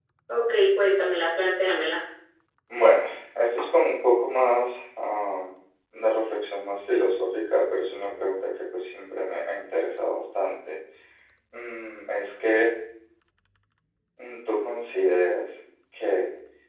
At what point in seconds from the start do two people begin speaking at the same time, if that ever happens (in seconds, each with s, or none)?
none